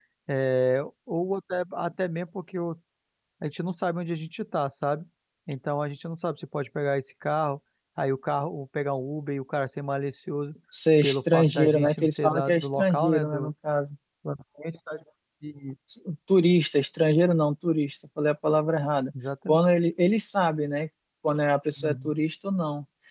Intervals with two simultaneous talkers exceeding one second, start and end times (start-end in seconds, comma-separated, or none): 11.0-13.5